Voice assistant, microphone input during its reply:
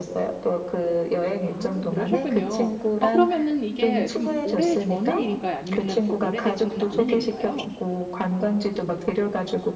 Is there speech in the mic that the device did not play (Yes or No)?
Yes